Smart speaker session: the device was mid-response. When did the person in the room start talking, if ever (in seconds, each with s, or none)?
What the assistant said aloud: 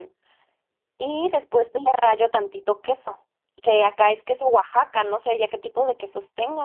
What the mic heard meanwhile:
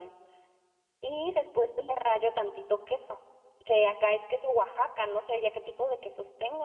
none